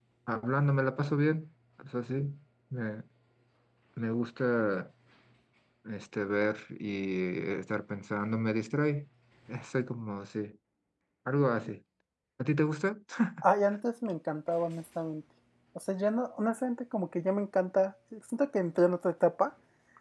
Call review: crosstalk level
none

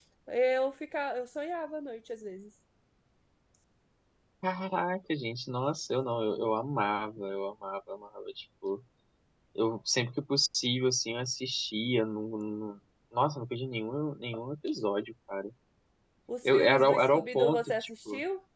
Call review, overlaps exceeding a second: present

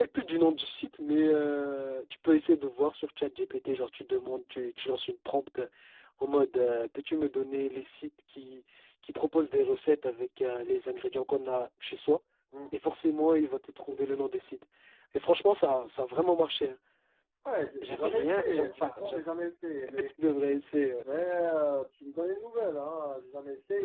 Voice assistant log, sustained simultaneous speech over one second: present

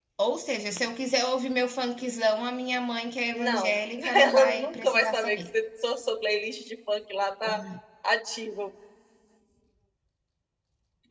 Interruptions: present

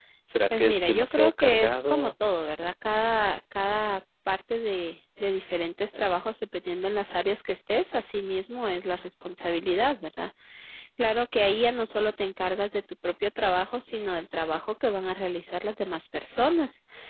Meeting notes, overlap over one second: present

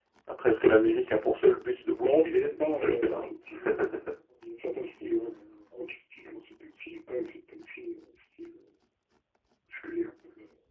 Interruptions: present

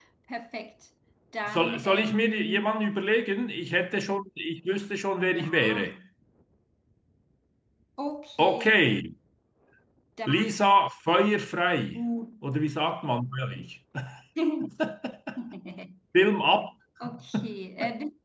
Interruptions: present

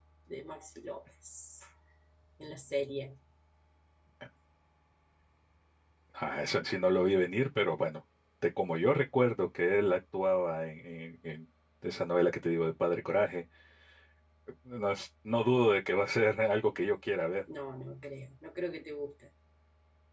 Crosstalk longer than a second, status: none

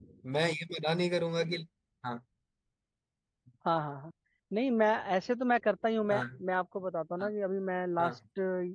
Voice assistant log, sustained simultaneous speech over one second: none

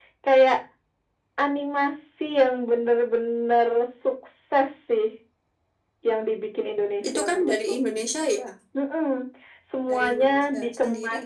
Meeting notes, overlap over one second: present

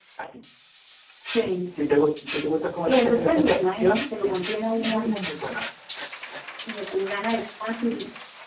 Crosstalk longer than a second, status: present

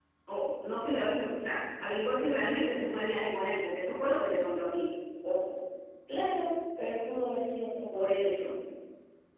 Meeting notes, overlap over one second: none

